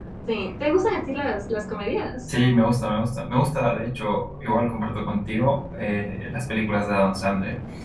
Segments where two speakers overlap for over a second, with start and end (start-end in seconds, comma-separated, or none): none